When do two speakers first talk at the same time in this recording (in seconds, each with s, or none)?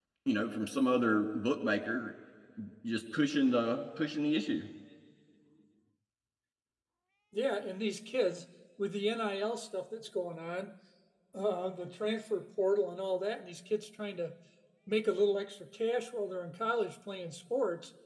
none